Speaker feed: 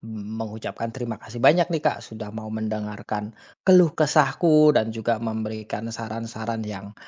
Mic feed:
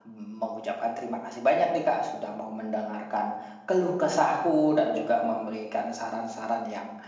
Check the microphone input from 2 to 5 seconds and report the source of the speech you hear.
echo only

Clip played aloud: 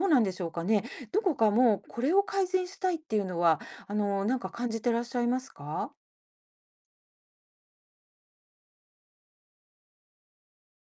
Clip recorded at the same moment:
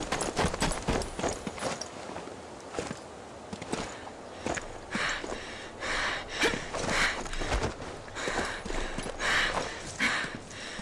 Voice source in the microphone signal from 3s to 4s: neither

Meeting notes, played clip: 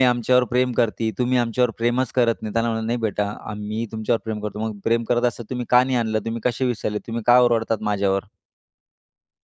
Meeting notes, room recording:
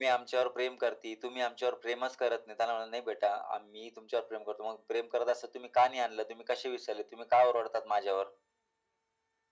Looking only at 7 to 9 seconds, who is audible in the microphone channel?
echo only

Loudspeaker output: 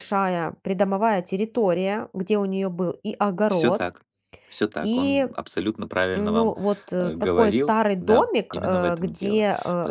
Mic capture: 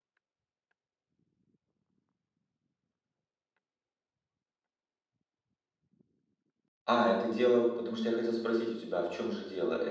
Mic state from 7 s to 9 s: user only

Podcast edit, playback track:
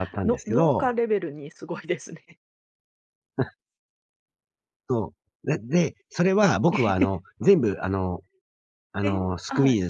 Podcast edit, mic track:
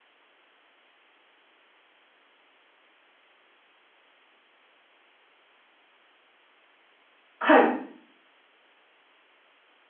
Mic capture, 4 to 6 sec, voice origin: neither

